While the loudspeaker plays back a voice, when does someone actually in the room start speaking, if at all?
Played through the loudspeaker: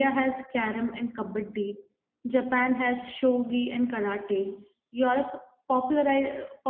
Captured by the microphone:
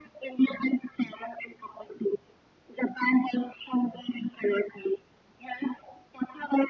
none

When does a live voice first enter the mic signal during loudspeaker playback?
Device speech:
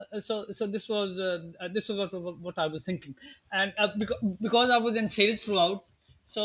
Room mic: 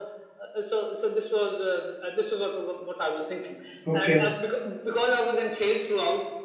4 s

